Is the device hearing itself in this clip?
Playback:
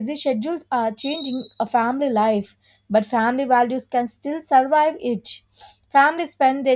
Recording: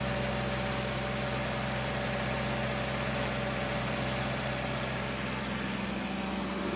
No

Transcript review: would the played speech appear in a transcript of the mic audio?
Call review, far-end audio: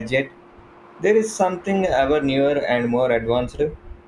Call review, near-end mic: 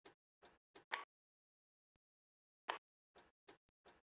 No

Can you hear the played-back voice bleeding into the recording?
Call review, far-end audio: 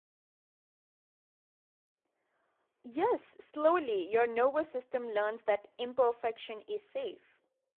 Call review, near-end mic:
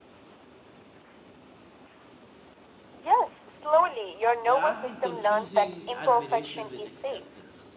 Yes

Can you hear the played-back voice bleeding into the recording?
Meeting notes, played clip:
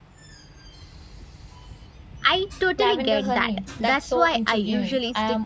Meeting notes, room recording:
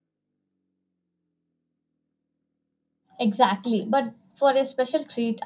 No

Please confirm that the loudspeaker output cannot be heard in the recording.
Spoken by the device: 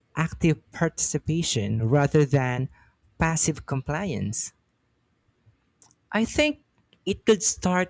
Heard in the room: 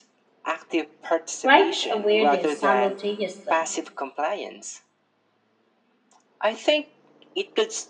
No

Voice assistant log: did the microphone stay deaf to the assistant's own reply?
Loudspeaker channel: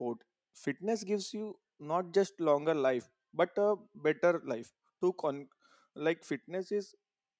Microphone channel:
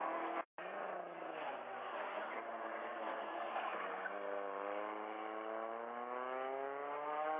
Yes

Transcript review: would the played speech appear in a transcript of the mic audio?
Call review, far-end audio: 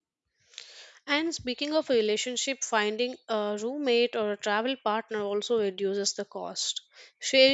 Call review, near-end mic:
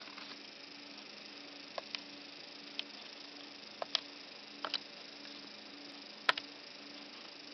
No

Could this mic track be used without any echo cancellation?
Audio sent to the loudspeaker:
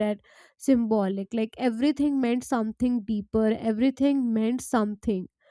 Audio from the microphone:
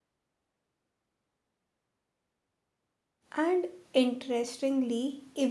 Yes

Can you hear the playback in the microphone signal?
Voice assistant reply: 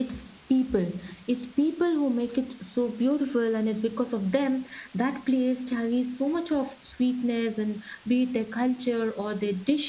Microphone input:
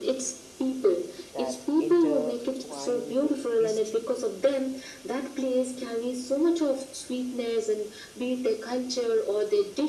Yes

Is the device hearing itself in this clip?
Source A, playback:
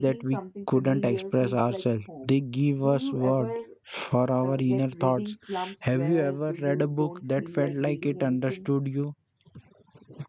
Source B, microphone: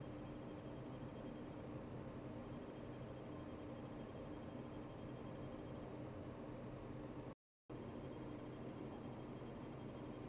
No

